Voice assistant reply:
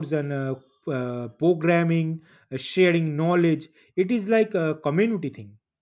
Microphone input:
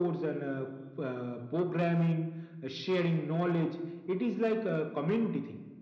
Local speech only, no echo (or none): none